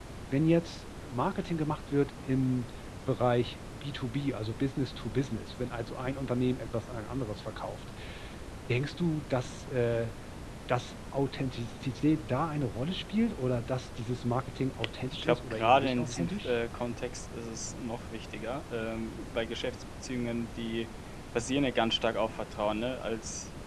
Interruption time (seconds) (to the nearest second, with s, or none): 15 s